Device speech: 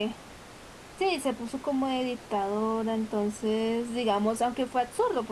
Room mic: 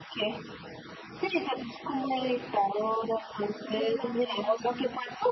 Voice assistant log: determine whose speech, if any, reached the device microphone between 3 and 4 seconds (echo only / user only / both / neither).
both